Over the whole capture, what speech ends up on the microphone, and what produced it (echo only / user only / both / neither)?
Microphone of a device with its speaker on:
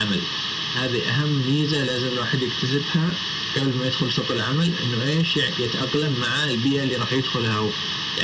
echo only